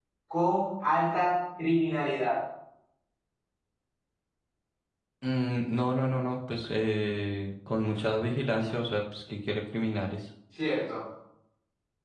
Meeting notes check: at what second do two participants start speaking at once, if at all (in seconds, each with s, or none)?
none